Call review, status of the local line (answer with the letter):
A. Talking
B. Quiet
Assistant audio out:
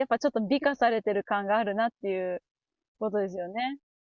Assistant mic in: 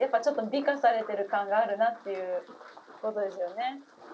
B